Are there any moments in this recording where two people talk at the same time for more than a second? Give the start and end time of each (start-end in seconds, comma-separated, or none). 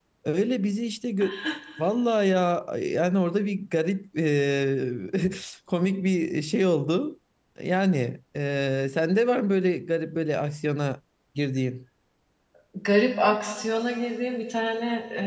none